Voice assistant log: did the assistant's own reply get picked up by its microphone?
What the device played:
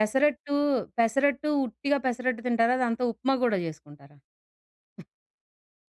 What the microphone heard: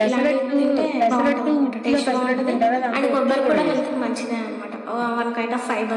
Yes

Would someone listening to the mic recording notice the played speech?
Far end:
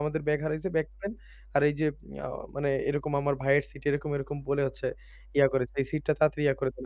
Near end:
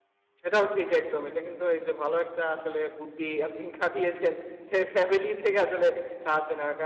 No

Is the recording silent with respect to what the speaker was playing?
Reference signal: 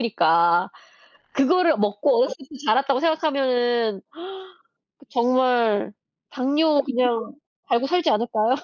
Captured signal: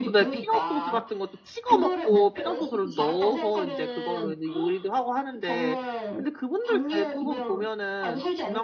No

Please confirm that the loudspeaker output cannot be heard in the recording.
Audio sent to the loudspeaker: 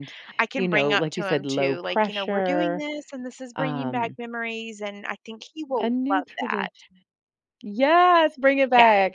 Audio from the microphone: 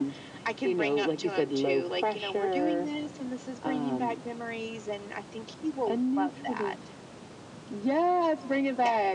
No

